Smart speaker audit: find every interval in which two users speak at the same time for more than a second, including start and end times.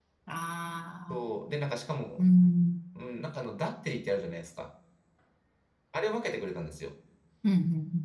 none

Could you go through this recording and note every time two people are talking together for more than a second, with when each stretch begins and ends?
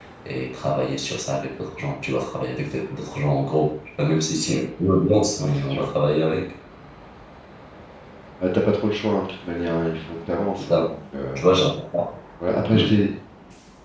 none

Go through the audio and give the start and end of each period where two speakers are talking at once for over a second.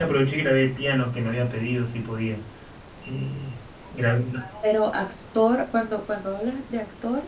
none

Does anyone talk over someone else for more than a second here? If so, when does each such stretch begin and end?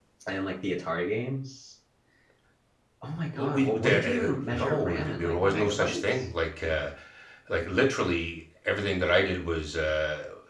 3.4-6.2

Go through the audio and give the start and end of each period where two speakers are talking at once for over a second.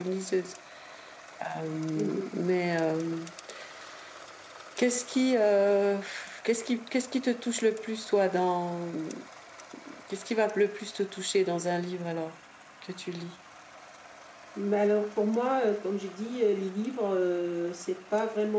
none

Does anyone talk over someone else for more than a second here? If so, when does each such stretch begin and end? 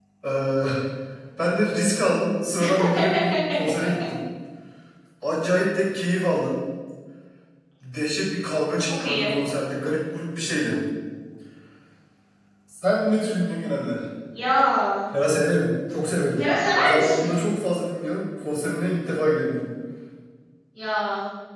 none

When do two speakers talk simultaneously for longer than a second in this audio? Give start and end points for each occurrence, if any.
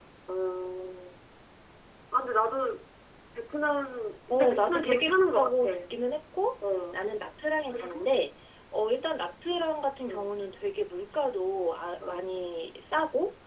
4.3-5.7

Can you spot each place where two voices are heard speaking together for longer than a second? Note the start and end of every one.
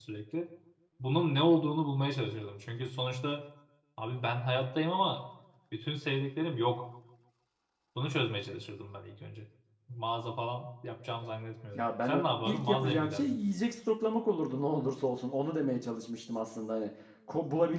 11.8-13.4

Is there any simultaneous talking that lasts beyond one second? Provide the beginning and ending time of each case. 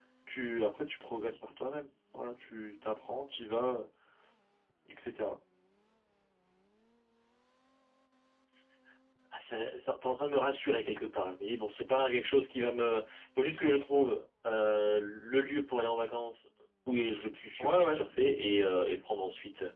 none

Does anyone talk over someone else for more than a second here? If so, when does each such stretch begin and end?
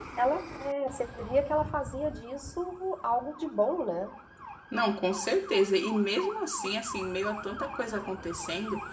none

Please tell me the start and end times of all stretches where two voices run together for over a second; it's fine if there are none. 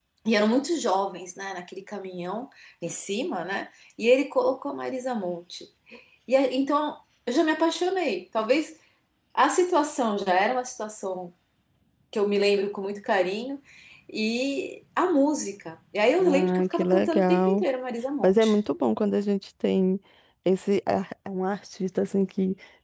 16.2-17.6

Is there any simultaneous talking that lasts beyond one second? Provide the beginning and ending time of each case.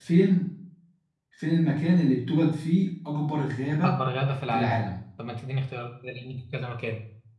none

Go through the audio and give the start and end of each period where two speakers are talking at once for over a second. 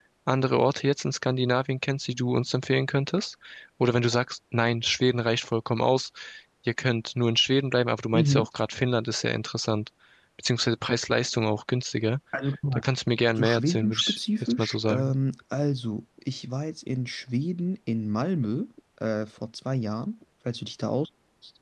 13.4-15.1

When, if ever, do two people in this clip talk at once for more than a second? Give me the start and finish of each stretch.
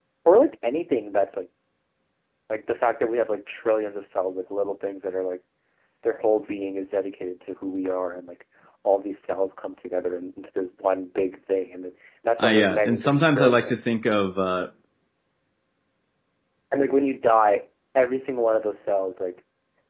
12.4-13.9

